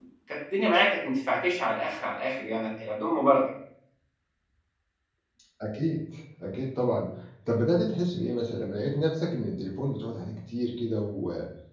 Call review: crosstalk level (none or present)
none